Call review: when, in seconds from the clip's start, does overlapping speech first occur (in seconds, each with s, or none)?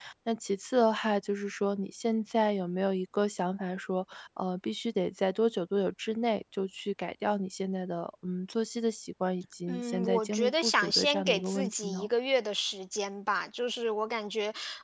9.7 s